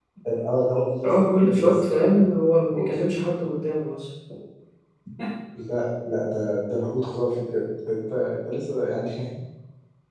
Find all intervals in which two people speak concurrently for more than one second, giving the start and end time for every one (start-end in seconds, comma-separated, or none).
1.0-2.2